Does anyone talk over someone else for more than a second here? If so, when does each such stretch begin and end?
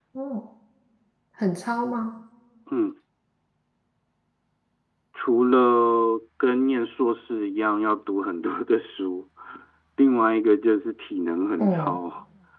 none

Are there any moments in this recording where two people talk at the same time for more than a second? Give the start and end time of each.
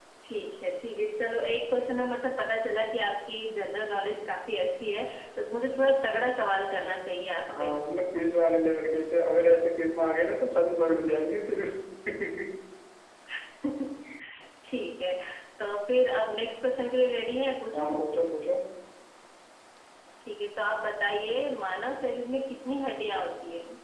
none

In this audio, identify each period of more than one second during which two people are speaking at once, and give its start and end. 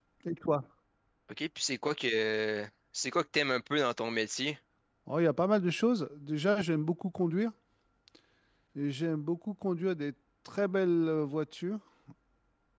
none

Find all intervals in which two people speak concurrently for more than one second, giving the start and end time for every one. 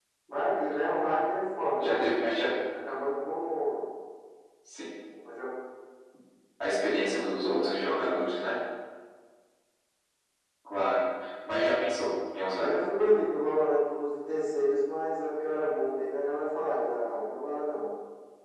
7.0-8.6

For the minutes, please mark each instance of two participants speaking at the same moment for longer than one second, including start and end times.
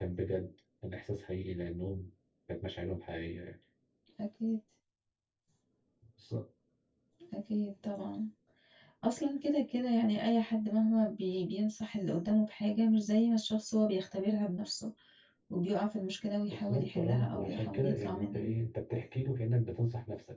16.5-18.5

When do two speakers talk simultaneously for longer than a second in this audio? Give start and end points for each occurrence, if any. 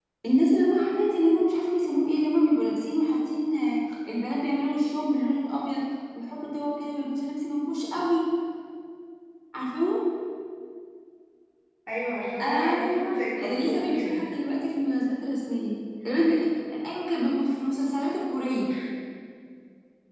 12.4-14.1

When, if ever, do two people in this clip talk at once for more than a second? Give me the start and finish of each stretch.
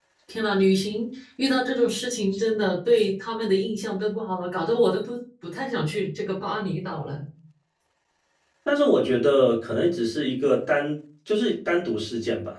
none

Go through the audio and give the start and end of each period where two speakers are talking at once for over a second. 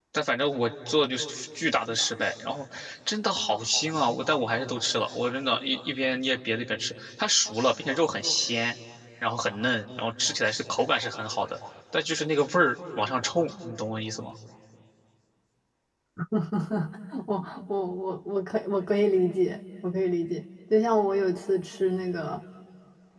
none

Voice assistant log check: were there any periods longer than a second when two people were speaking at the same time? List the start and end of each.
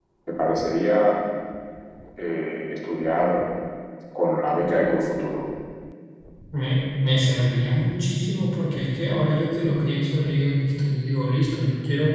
none

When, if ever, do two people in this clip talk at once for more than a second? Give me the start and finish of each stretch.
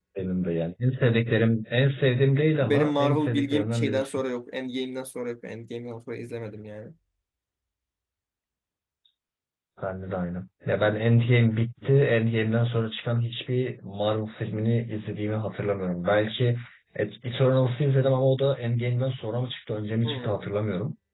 2.6-4.2

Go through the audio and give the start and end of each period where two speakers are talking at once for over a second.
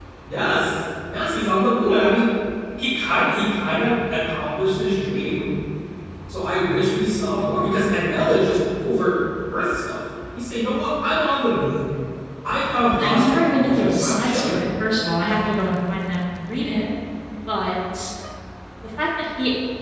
13.0-14.6

